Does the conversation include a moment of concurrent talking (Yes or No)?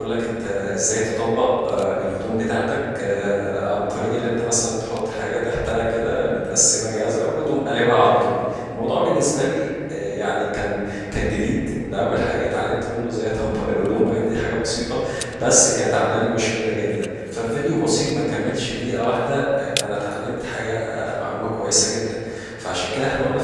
No